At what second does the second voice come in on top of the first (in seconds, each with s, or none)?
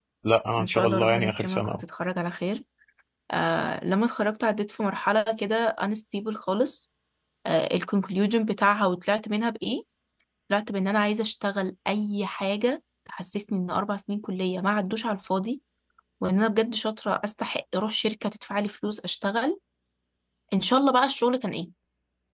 0.6 s